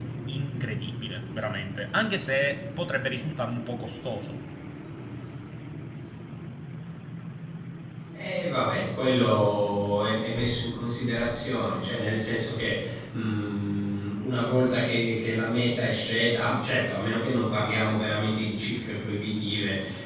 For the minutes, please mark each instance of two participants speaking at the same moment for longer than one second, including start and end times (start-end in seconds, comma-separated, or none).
none